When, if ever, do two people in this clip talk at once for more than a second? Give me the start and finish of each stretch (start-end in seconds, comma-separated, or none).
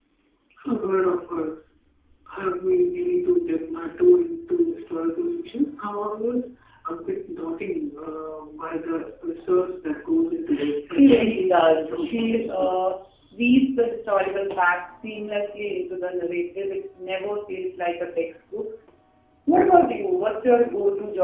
10.5-12.7